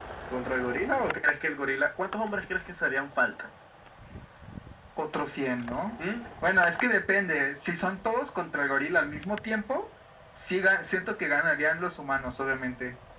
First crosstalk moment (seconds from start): none

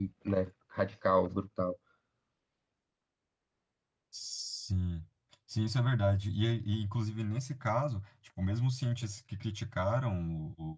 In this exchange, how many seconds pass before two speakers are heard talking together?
none

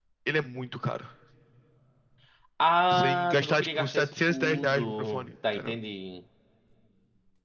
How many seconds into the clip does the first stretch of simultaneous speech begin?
2.9 s

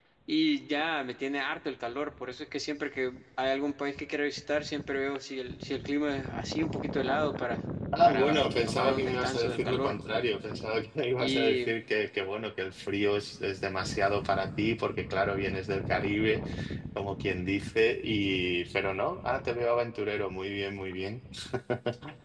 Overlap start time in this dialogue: 8.0 s

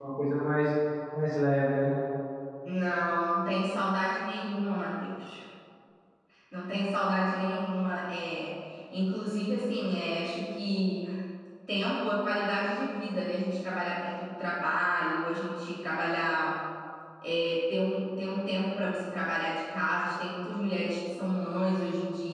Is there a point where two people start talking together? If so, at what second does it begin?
none

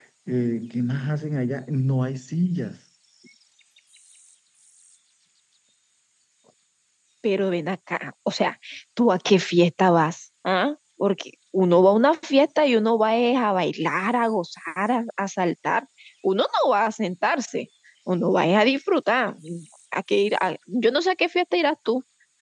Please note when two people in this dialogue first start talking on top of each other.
none

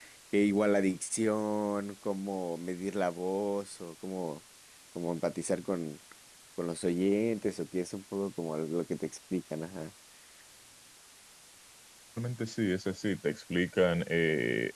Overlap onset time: none

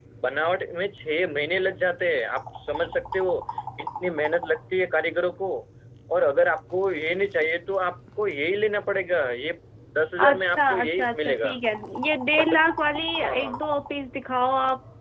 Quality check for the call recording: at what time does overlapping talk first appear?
10.2 s

